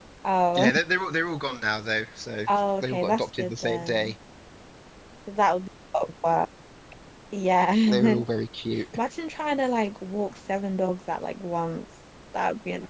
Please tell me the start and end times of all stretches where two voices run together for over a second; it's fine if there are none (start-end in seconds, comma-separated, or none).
2.5-4.1